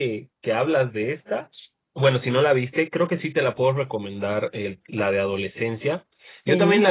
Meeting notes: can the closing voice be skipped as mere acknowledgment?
Yes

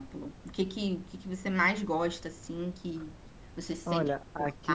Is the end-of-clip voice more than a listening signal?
Yes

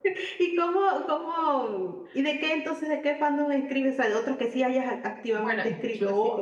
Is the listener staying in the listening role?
No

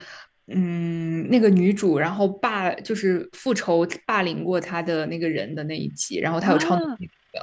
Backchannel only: No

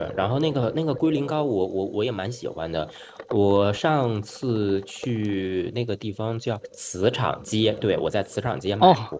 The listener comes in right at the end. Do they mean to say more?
Yes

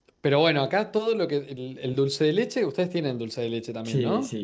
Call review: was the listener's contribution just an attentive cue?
No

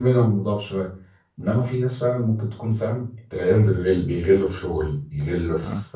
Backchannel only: Yes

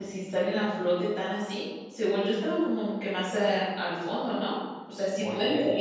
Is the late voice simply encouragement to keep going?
No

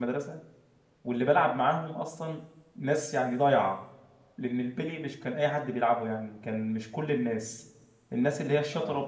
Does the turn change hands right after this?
No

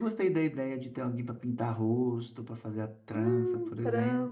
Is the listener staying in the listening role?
No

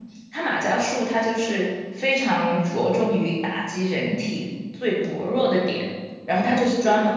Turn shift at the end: No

